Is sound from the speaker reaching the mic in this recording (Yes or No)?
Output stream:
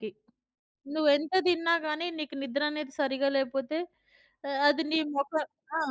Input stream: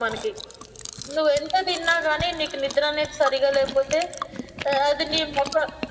Yes